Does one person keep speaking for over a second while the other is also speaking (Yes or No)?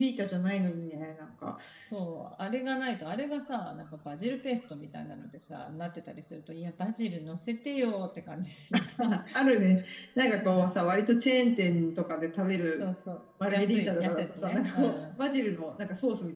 Yes